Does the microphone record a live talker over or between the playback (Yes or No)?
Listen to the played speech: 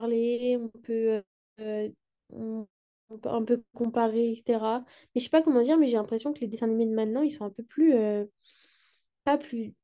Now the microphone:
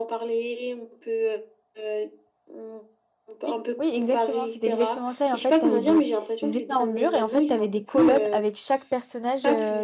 Yes